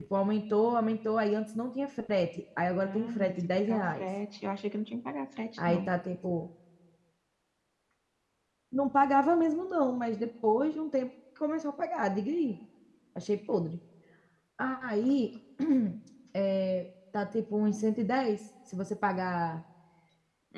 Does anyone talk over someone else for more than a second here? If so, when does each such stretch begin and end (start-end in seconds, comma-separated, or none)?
2.9-4.0